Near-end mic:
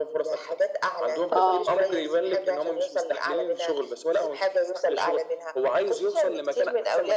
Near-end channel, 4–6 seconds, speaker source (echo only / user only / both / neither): echo only